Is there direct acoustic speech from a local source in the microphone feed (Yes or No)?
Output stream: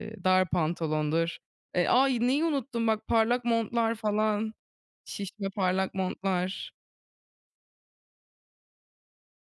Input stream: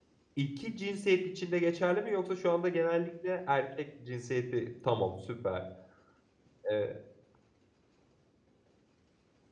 Yes